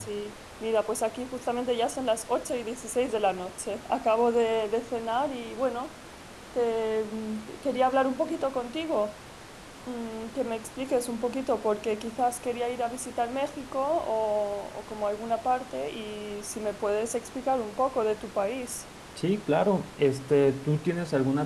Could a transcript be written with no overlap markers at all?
Yes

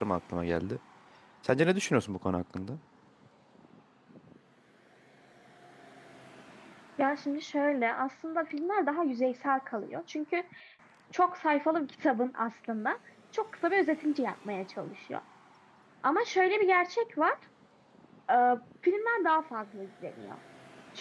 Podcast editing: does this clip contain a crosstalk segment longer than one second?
No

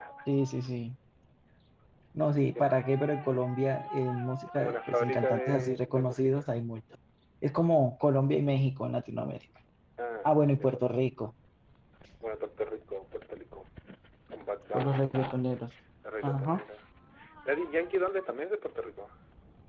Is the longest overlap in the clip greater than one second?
Yes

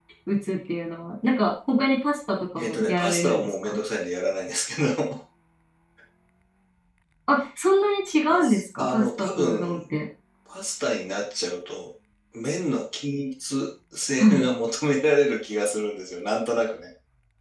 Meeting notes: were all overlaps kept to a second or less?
No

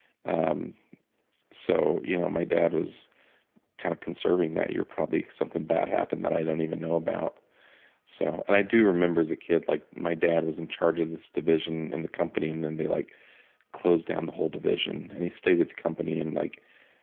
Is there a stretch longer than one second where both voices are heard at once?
No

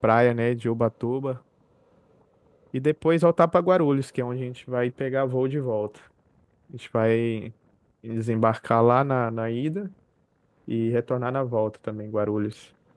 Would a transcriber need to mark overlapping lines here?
No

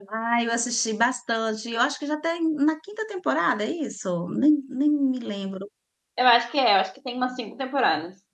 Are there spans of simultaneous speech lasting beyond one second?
No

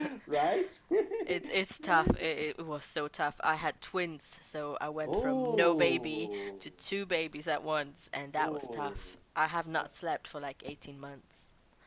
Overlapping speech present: Yes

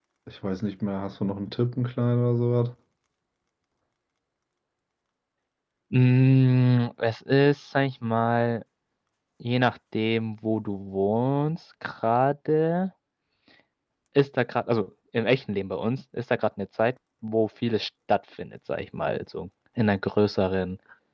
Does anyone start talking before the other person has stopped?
No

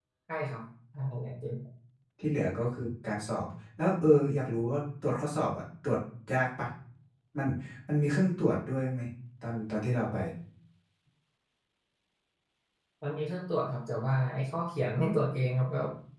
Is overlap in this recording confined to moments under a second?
Yes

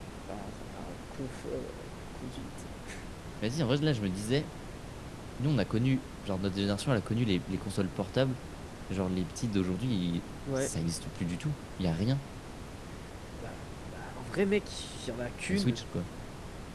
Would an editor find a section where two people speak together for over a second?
No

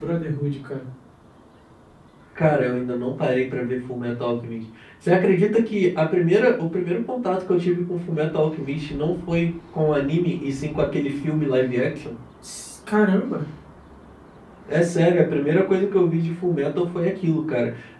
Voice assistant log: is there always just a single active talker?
Yes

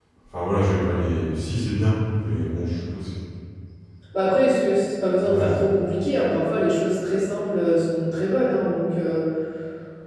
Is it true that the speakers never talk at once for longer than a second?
Yes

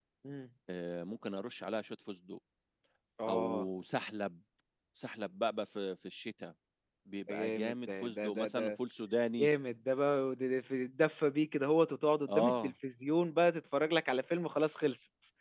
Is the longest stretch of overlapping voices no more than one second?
No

